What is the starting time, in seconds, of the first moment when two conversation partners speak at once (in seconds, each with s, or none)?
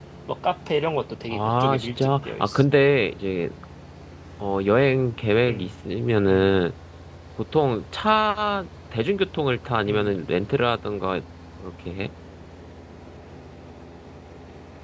1.3 s